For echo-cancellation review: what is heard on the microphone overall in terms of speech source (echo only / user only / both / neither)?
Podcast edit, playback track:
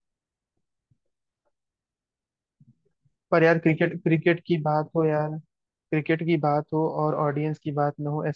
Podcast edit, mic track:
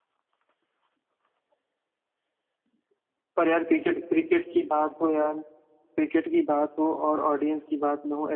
echo only